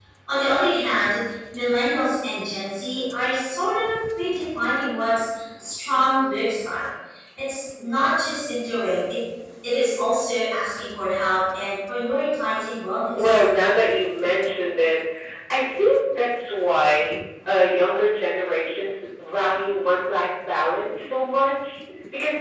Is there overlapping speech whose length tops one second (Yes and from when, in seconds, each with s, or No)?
No